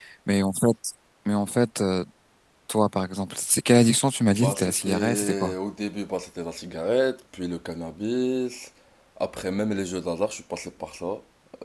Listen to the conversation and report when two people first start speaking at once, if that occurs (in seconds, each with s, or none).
4.3 s